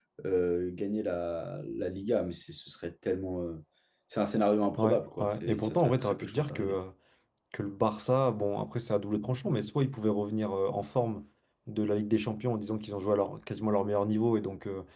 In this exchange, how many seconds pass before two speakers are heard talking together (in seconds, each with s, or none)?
4.8 s